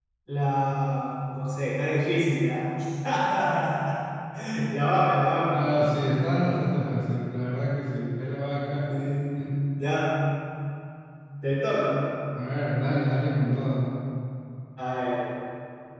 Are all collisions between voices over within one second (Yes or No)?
Yes